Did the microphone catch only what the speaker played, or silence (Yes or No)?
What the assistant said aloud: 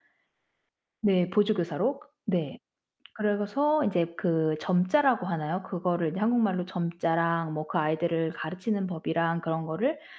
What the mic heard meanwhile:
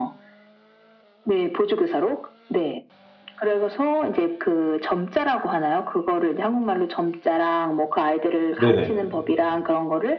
No